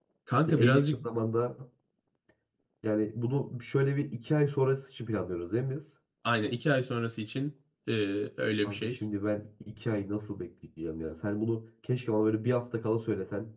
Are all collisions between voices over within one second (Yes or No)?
Yes